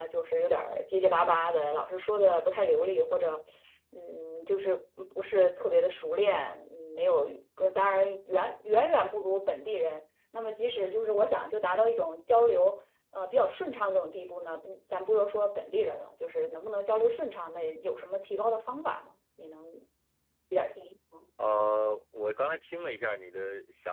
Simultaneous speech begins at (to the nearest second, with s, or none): none